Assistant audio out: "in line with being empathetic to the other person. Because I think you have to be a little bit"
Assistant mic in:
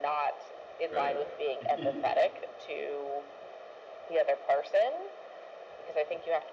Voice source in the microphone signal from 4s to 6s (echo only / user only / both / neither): echo only